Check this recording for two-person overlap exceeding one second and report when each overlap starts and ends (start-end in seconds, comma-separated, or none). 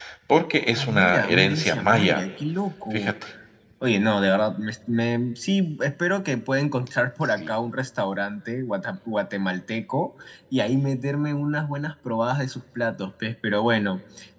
0.7-2.2